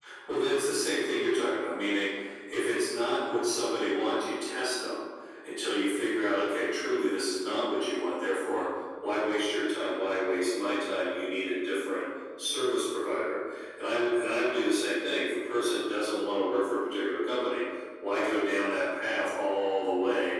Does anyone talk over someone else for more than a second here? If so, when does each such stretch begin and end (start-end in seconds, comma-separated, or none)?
none